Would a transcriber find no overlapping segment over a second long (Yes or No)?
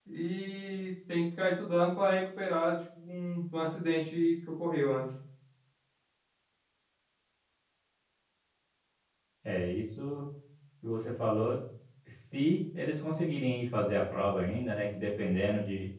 Yes